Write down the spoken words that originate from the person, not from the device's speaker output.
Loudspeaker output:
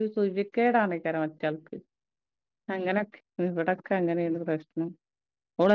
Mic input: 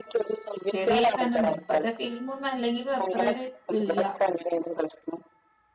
ചെറിയ കണ്ണട ഇപ്പത്തെ ഫിലിമ ഒന്നും അല്ലെങ്കും അത്ര ഒരു ഇതില്ല

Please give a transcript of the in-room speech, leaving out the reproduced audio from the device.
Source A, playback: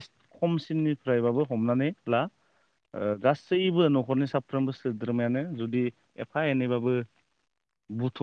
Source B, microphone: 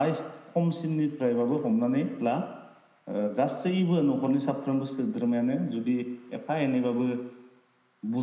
none

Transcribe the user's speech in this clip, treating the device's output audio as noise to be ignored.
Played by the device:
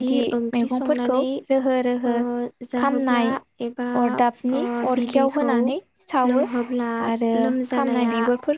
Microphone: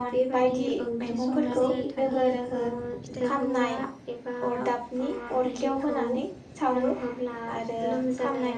मोनसोर थालिर फिथाइखौ

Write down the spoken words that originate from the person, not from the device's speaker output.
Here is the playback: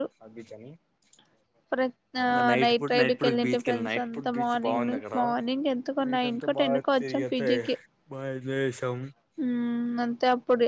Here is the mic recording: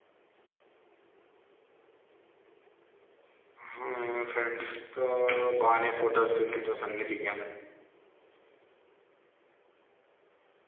హుమ్ ఫ్రెండ్స్ తో బానే ఫోటోస్ గీటోస్ అన్ని దిగాం

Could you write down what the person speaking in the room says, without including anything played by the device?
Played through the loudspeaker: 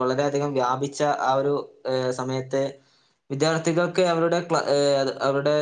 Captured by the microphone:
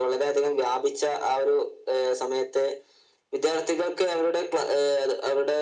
none

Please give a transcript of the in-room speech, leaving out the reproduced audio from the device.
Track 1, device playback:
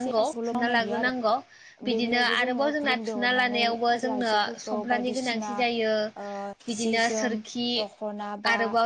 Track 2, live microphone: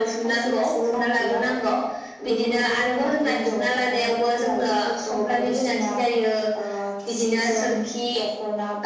none

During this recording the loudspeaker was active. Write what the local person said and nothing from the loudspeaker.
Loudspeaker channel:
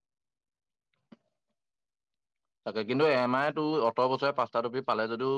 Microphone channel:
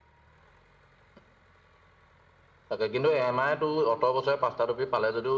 none

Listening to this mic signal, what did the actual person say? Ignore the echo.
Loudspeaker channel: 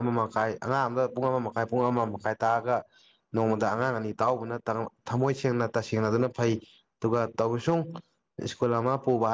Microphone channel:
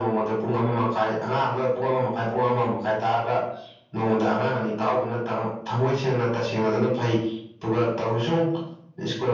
none

